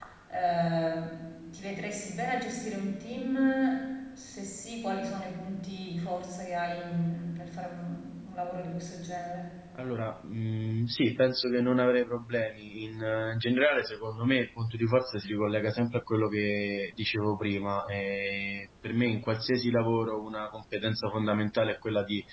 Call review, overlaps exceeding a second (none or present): none